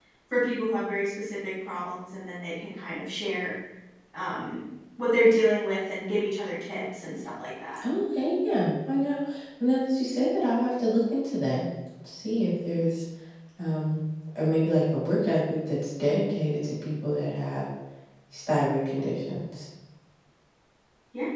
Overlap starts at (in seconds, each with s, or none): none